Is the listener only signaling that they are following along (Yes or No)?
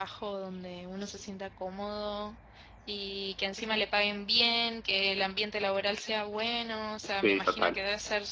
Yes